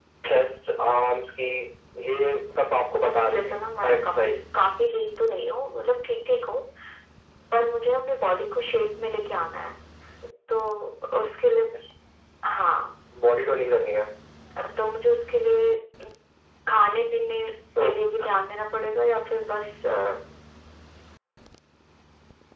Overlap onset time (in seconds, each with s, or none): 3.0 s